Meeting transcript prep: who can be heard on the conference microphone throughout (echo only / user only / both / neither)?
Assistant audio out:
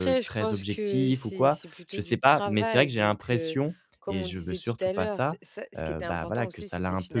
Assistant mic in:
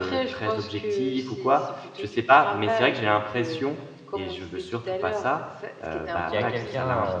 both